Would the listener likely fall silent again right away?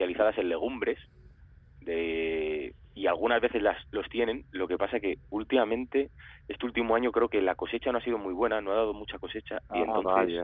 Yes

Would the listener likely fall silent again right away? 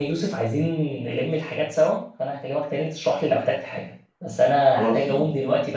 Yes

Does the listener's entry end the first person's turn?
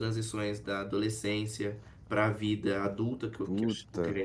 No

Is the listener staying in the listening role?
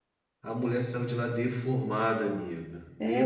No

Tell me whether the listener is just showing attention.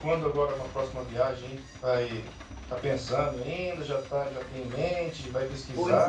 No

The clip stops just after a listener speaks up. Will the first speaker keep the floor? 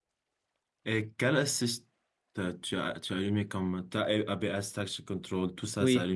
No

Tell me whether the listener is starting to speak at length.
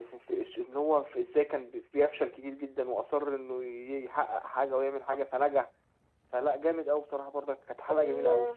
Yes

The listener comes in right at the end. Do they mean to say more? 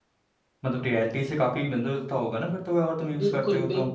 Yes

